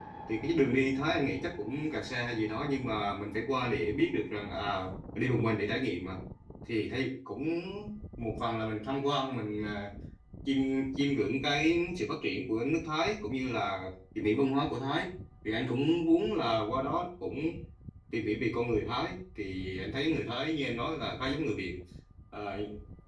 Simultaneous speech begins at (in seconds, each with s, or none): none